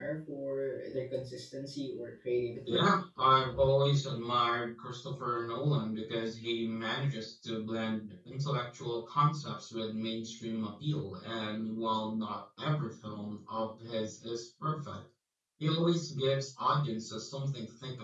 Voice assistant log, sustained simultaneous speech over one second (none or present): none